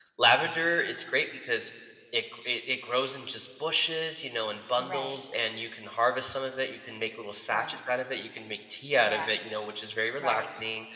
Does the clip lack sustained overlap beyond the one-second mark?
Yes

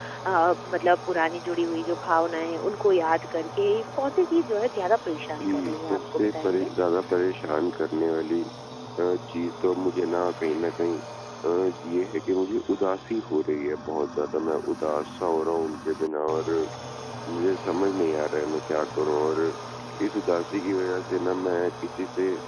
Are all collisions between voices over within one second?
No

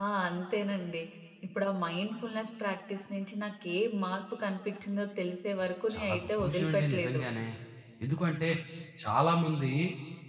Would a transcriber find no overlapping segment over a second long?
No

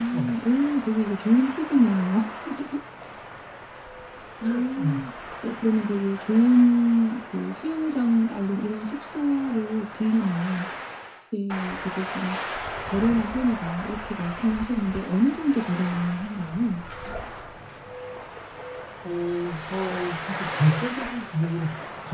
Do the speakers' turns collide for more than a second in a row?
No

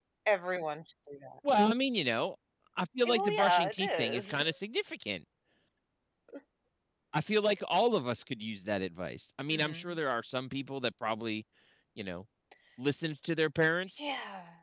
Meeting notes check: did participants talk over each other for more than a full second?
Yes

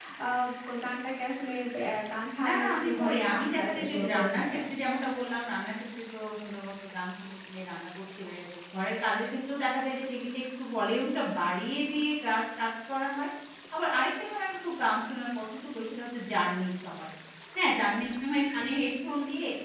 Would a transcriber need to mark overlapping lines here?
Yes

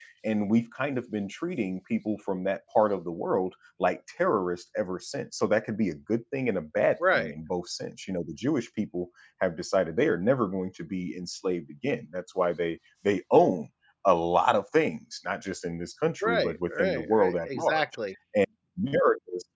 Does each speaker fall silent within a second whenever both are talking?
No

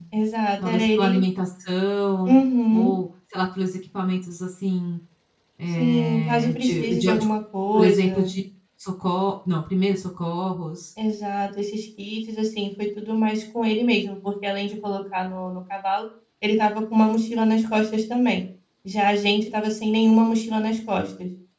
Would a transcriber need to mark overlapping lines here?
Yes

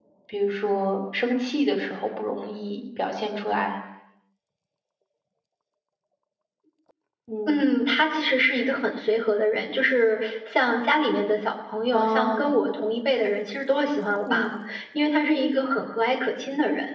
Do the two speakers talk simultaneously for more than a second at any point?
No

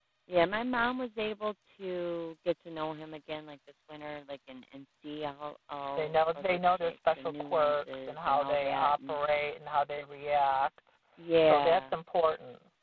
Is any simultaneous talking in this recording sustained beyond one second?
Yes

